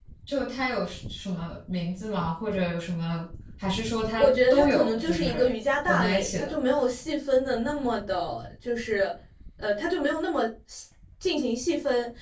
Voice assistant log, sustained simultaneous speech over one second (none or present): present